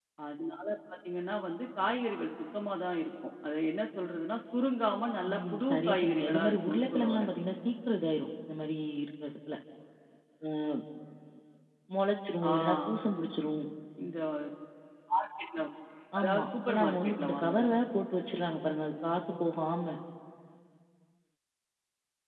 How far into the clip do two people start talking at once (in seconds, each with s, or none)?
5.3 s